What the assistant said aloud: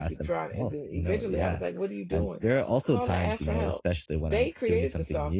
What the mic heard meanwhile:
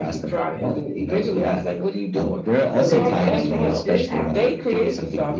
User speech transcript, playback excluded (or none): so they can tell me if this happens